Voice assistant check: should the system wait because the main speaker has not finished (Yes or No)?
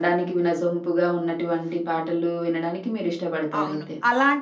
No